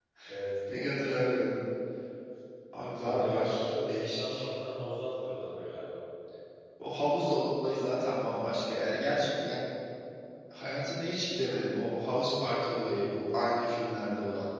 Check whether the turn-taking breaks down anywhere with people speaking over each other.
Yes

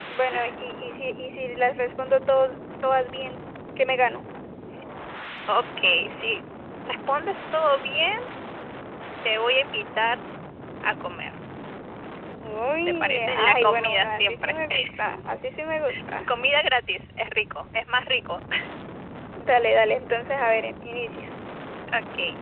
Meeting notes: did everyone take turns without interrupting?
No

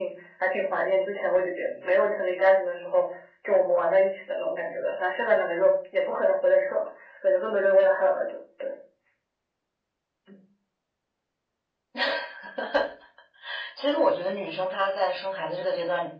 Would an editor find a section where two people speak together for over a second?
No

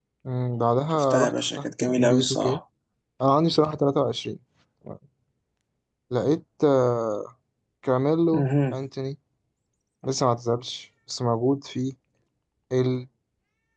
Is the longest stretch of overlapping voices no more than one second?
No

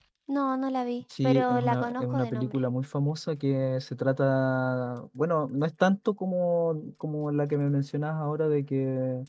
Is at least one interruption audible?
Yes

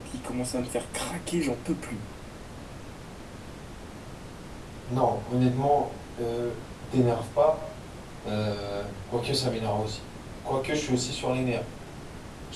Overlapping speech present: No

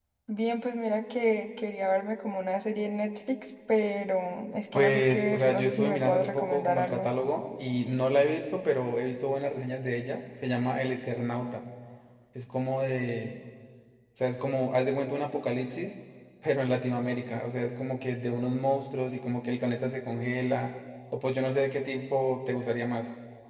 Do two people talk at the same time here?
Yes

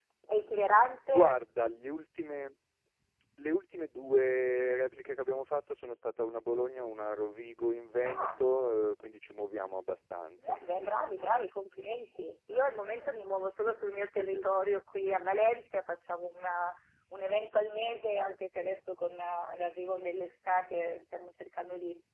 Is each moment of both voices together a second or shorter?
Yes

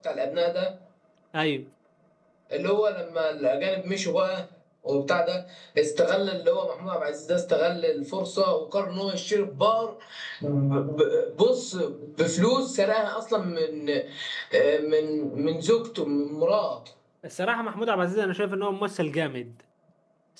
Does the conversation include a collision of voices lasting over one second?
No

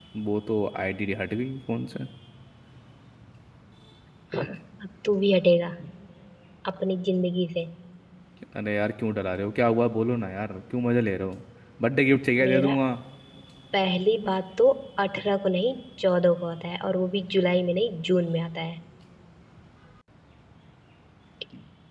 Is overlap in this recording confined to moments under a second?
Yes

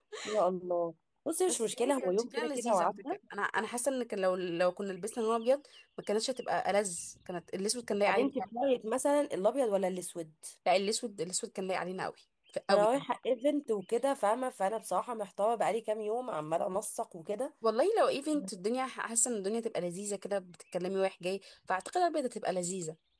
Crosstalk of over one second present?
Yes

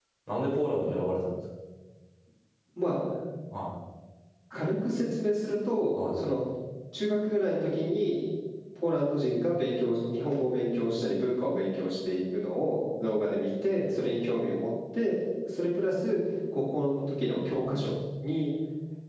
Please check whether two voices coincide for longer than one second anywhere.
No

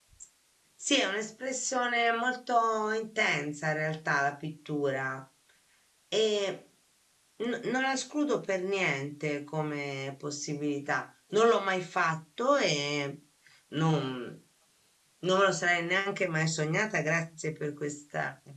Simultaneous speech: No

